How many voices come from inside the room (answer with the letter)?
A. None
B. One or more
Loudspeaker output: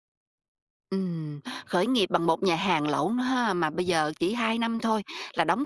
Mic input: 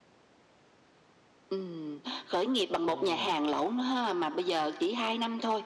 B